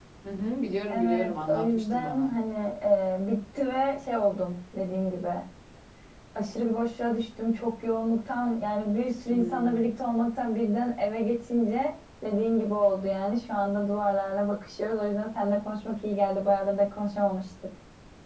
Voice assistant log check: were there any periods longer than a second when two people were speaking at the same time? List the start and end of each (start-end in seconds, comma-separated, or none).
0.9-2.3